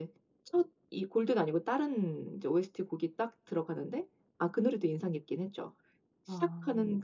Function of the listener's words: listening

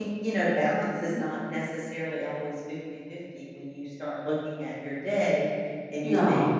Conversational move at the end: listening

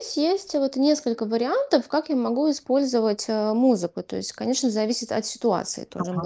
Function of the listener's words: taking over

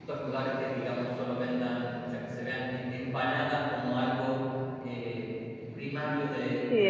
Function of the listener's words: taking over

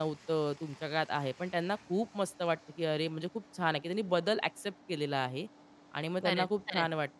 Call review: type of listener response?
listening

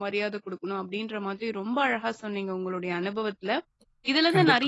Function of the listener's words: listening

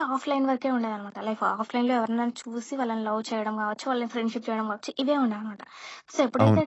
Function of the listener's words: listening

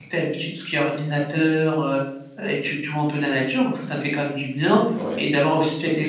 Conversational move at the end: listening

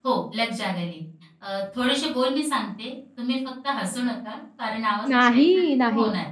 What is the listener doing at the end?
taking over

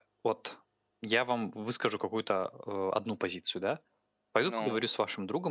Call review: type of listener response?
listening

